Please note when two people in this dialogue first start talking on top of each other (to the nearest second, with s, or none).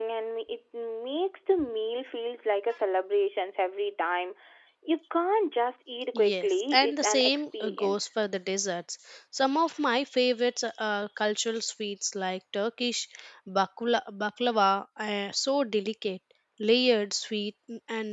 6 s